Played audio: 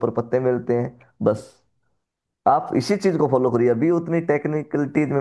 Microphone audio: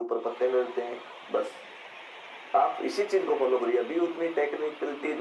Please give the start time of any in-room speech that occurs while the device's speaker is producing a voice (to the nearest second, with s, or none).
none